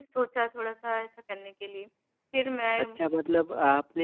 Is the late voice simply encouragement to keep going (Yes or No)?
No